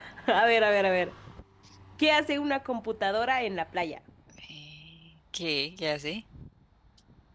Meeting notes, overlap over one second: none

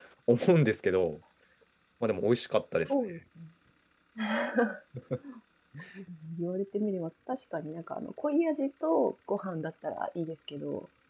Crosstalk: none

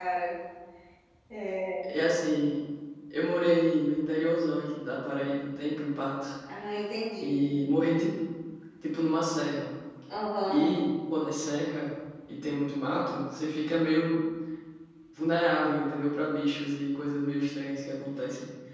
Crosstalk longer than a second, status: none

